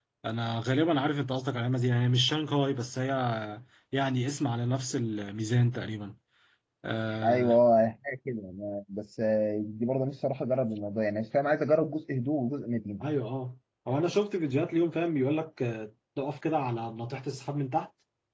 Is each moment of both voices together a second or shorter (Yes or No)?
Yes